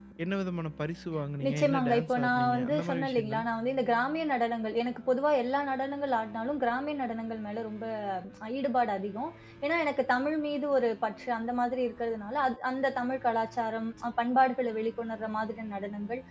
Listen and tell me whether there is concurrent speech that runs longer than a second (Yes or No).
Yes